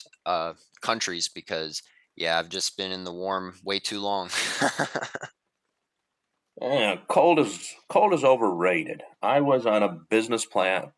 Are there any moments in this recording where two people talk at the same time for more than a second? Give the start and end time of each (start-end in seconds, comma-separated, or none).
none